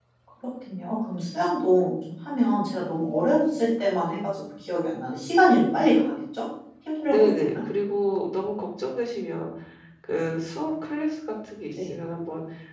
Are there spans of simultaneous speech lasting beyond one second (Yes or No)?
No